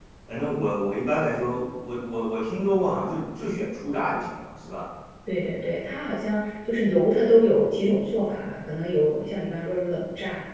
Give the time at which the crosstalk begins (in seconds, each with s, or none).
none